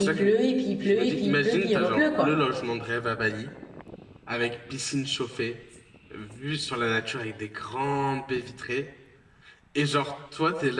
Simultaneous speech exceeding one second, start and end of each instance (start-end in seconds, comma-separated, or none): 0.8-2.3